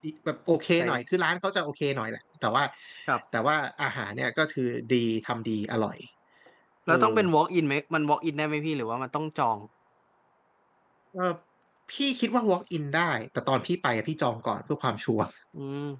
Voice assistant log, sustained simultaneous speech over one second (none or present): none